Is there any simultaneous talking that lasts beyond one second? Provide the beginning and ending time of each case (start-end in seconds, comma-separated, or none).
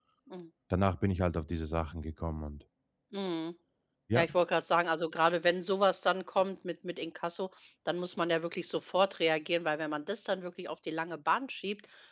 none